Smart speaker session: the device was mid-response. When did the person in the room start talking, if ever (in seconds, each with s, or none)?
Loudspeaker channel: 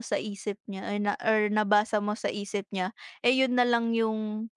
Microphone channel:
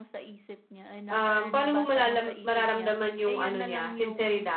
1.1 s